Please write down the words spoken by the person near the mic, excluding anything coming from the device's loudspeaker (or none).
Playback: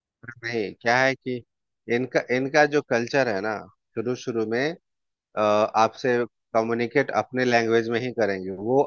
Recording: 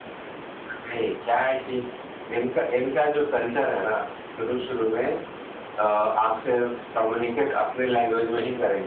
none